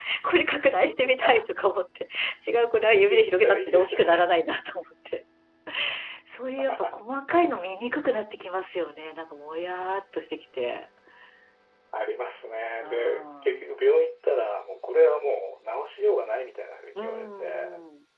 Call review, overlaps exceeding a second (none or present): present